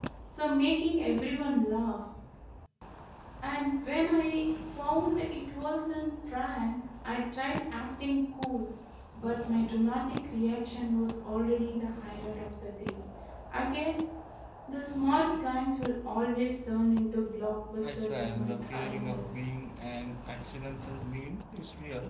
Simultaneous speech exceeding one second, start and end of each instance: 17.8-19.2

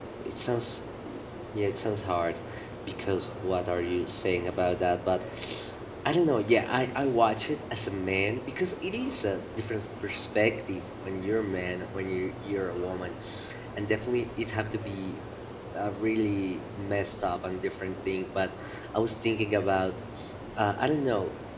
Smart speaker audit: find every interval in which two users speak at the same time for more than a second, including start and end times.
none

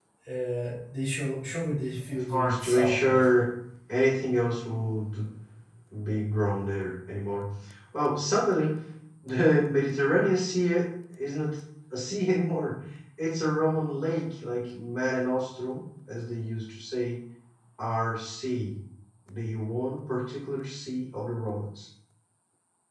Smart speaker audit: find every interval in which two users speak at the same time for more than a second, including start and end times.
2.1-3.4

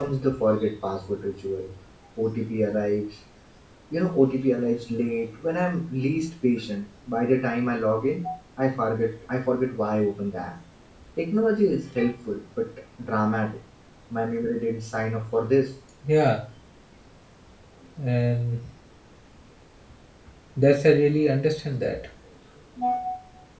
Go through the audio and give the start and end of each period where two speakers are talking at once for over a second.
none

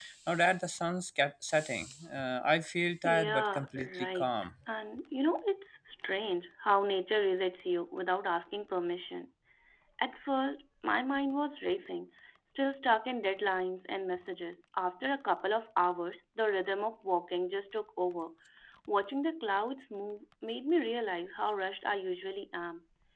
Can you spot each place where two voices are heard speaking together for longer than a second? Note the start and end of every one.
3.0-4.3

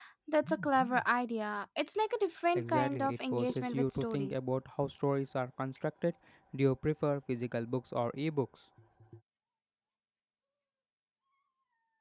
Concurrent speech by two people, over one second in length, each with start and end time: 2.5-4.3

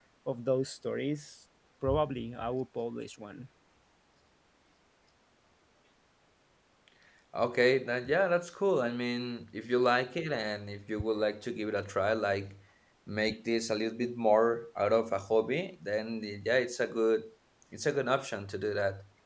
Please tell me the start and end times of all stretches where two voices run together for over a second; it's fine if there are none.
none

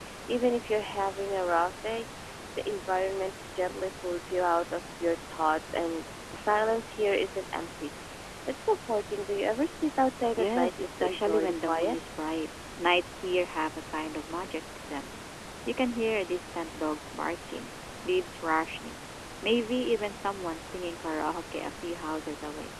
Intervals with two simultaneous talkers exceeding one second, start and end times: 10.4-12.0

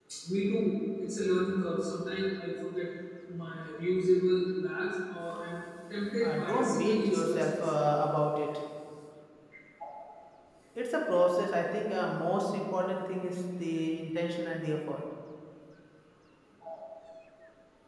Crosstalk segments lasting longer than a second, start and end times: 6.2-7.5

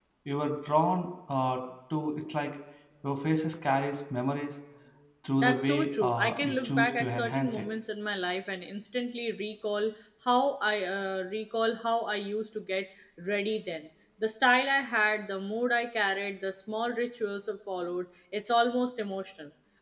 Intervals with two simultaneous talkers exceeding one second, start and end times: 5.4-7.7

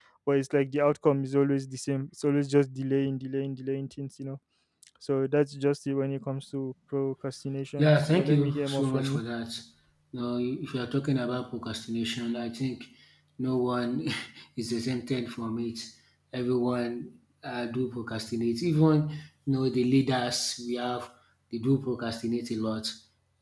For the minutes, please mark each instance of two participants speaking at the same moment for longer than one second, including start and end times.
7.8-9.2

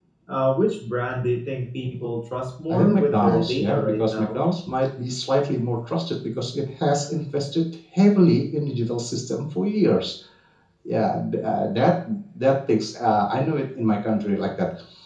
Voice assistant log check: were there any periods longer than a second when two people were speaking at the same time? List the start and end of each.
2.7-4.4

